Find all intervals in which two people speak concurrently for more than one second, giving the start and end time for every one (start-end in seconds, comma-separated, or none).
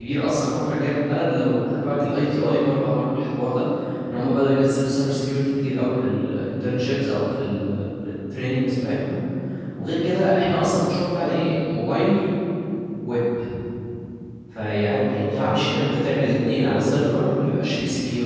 14.9-17.4